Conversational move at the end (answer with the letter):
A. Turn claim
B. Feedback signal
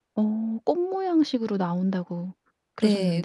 A